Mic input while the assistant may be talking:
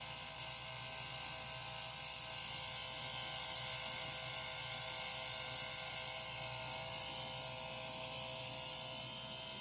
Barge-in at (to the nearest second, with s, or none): none